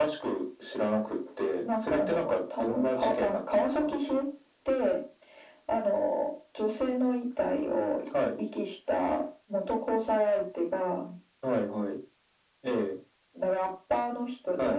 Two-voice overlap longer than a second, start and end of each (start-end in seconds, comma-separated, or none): 1.6-3.9